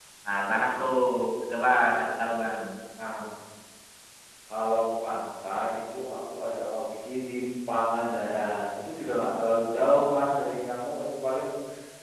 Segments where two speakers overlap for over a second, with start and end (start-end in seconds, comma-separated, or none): none